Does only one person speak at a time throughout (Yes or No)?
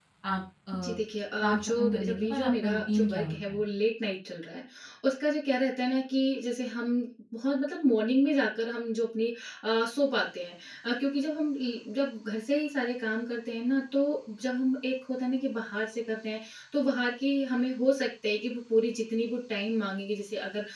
No